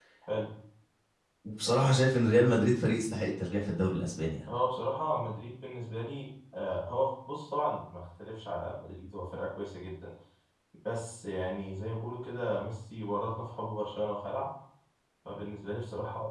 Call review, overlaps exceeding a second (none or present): none